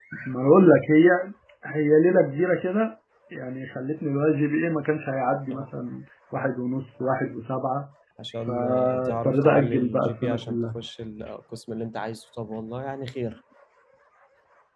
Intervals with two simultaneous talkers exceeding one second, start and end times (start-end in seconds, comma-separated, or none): 8.4-10.6